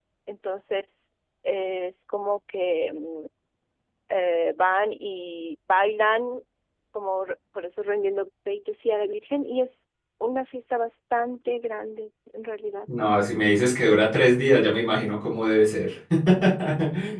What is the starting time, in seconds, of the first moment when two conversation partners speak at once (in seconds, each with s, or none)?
none